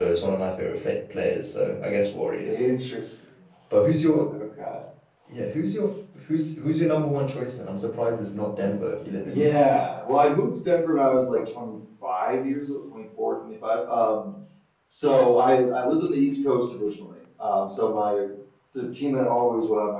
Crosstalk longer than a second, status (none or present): none